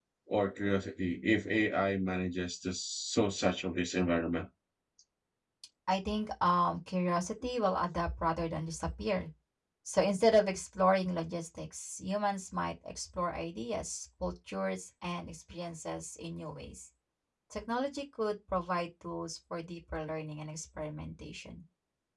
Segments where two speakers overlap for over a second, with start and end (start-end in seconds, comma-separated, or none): none